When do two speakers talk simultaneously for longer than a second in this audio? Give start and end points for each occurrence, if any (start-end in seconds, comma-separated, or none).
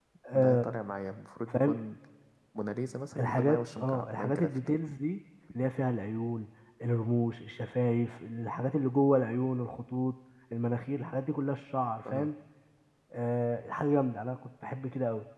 3.2-4.6